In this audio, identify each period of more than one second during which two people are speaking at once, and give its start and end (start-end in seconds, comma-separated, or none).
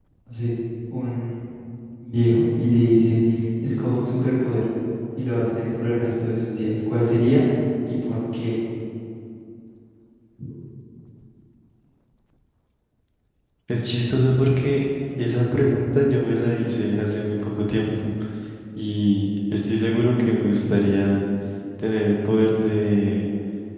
none